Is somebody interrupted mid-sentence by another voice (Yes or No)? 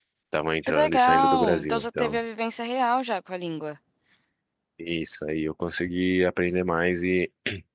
Yes